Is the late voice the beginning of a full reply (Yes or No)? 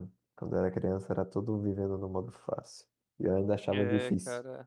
Yes